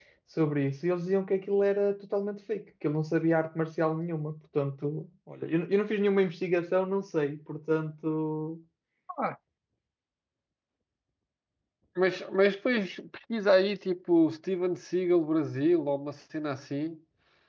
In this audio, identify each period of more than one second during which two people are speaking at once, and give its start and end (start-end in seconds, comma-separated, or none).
none